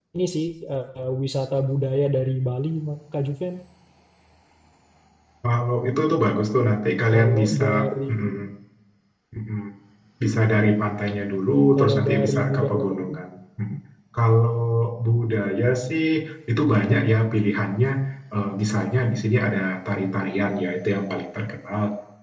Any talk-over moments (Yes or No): Yes